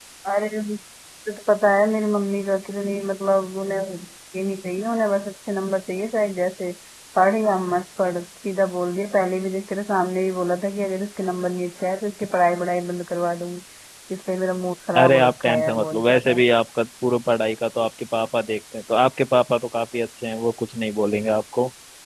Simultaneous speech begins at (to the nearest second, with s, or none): 15 s